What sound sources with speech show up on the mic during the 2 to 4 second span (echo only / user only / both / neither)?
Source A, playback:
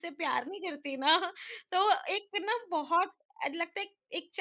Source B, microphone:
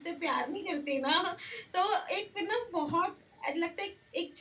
echo only